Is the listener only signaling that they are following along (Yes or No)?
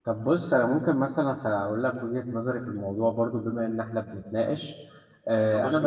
Yes